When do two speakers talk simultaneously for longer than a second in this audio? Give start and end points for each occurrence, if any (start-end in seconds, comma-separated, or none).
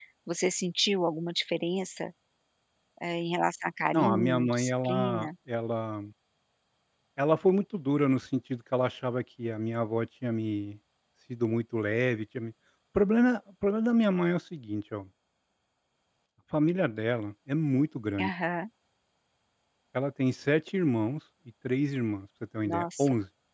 3.9-5.3